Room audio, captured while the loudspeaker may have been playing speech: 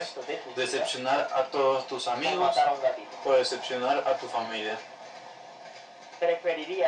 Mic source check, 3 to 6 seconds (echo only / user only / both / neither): echo only